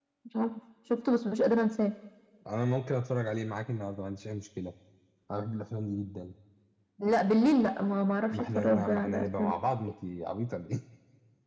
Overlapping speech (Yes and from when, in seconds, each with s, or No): Yes, from 8.3 s